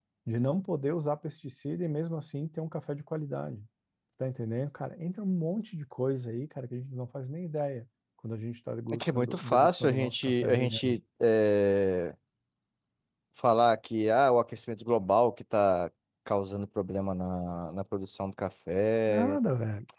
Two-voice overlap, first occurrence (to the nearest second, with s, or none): 9 s